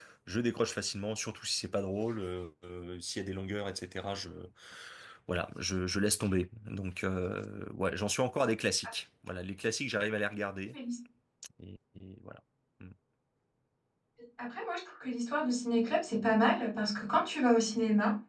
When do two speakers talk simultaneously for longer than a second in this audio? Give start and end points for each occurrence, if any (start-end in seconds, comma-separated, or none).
none